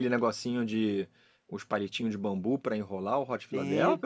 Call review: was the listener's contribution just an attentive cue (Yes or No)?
No